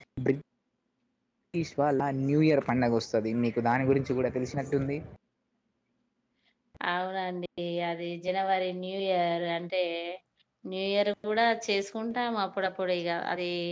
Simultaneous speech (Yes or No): No